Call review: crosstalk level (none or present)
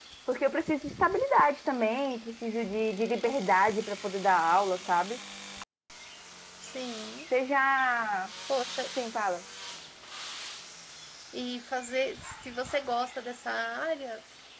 none